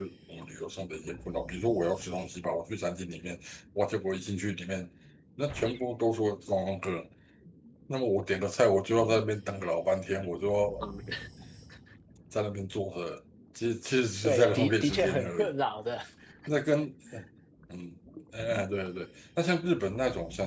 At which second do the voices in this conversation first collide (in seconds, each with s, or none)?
14.2 s